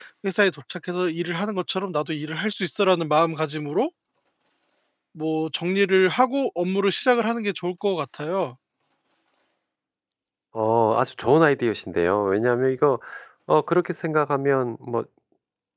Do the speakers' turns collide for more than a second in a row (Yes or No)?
No